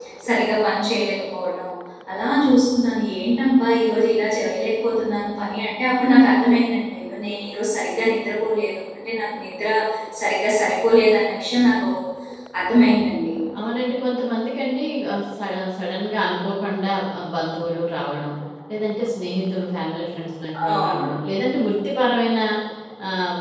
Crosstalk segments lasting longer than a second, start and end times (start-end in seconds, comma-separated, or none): none